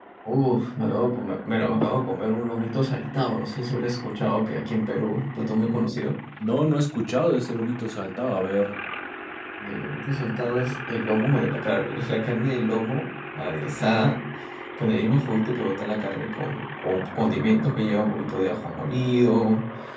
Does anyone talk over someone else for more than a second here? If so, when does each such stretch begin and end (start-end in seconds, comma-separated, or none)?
none